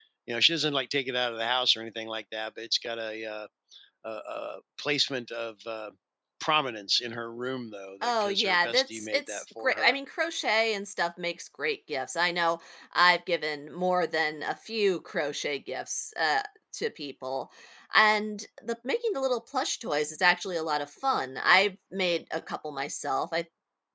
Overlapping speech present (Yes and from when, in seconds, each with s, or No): Yes, from 8.0 s